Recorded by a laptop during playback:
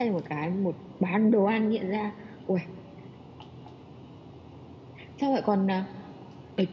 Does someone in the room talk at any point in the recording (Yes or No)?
Yes